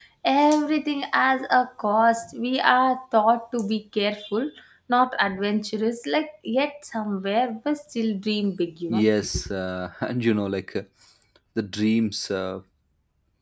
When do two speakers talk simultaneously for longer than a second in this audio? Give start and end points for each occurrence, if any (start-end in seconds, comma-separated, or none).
none